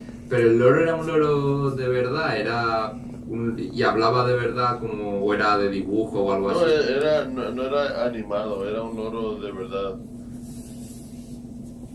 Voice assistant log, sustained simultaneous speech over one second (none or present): none